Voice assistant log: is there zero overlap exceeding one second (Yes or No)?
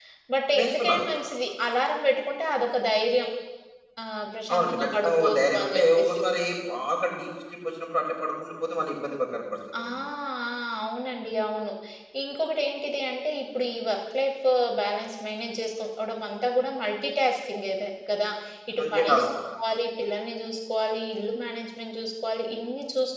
No